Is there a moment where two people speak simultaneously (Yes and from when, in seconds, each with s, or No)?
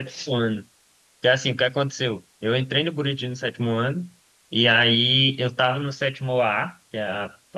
No